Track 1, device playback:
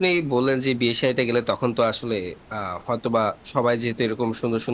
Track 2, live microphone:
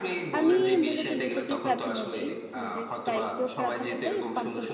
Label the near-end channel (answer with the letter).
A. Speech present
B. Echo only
A